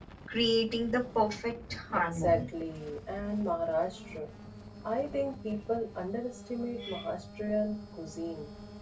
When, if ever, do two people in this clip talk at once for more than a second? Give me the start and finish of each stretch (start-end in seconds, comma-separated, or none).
none